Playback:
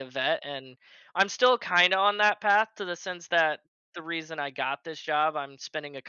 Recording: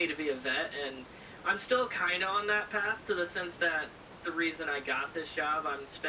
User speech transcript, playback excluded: none

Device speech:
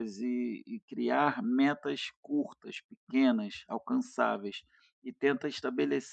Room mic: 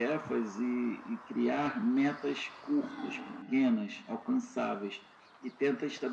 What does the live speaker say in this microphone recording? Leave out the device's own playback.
Hum.

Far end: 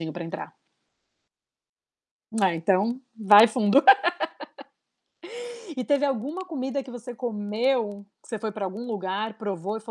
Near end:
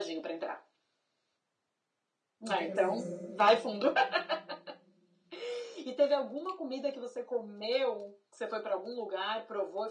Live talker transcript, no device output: muito gostoso.

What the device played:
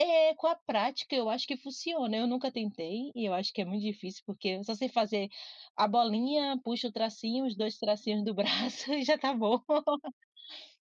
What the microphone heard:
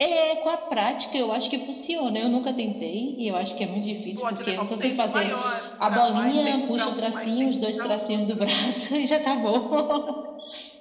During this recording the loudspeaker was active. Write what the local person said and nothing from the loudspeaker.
pode levar um tempo maior, um para mais tempo para outro, né.

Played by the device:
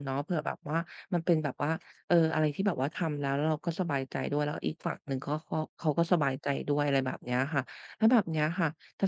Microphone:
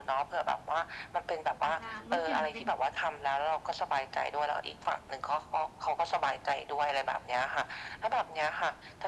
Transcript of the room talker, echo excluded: อาจจะลดหย่อนเป็น

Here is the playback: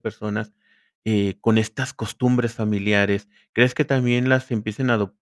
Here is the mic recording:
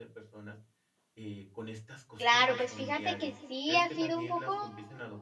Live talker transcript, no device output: Claro. Pues fíjate que sí ha sido un poco,

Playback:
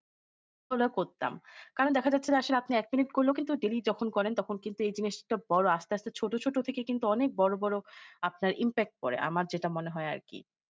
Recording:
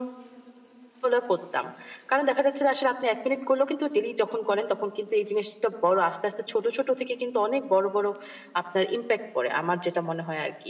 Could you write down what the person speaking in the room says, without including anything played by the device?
none

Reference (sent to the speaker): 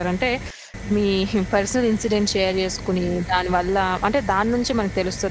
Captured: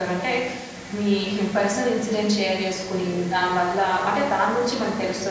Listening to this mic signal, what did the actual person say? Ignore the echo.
none

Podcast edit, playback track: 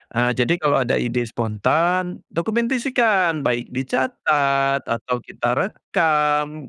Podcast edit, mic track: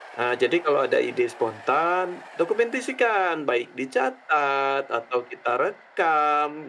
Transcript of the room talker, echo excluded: none

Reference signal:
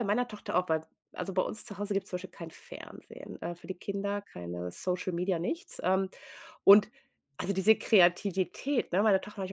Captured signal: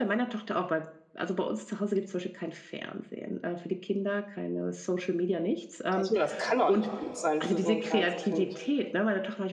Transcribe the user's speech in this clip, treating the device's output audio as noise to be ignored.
da denke ich mir, das kann doch nicht gut sein für so 'n kleines Kind.

